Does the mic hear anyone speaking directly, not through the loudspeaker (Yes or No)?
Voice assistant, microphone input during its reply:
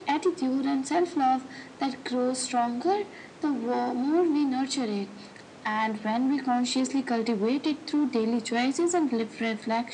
No